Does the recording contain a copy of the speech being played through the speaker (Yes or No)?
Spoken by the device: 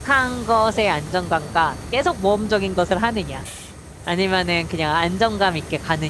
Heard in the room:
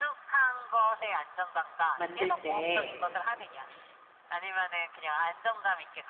Yes